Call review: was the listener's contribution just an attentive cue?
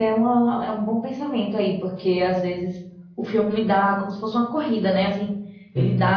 Yes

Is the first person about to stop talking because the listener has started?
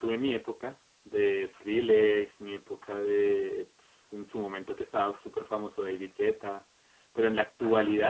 No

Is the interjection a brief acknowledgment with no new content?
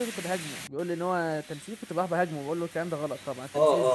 No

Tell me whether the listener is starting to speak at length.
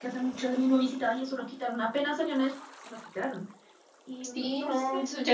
Yes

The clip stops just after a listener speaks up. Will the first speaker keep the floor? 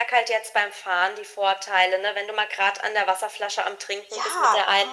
No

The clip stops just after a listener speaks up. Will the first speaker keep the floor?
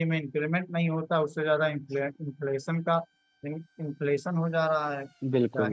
No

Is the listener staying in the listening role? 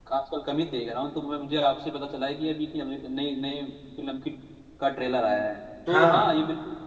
Yes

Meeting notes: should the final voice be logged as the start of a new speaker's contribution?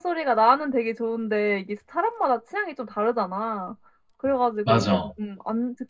No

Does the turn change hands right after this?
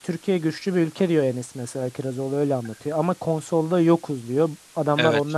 No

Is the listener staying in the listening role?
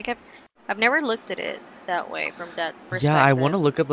No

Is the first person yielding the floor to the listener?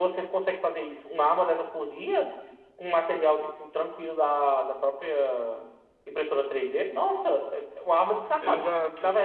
No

